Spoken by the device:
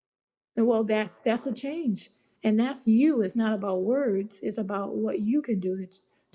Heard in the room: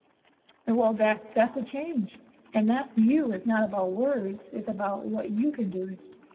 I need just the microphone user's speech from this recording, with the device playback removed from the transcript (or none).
none